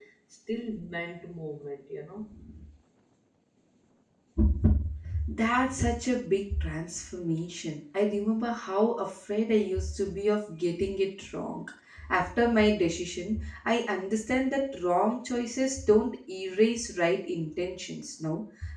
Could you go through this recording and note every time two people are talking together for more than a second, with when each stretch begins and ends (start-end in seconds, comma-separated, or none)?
none